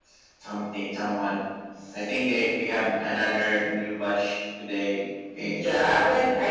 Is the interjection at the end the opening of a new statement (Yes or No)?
Yes